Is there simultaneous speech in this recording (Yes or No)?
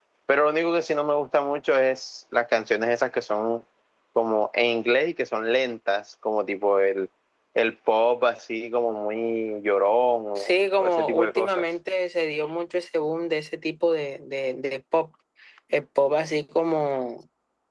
Yes